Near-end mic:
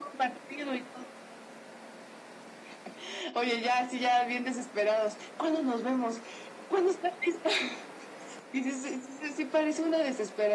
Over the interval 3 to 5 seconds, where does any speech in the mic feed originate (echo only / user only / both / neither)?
echo only